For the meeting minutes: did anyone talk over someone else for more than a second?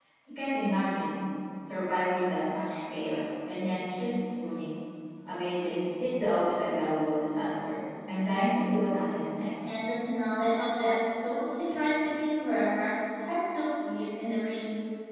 No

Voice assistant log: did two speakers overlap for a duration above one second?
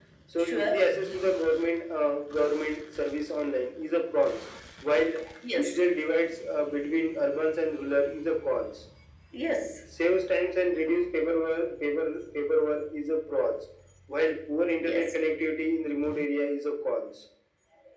No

